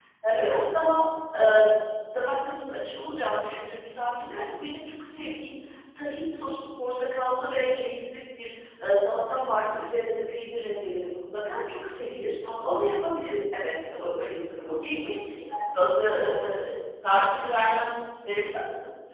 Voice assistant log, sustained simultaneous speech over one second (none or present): none